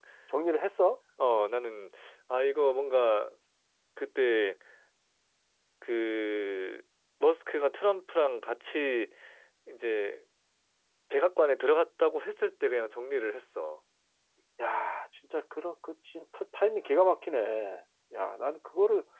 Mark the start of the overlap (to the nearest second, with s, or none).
none